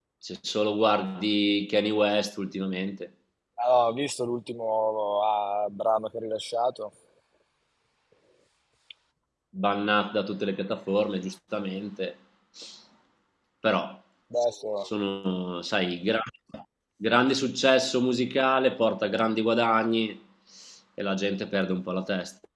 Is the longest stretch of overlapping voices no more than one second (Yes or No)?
Yes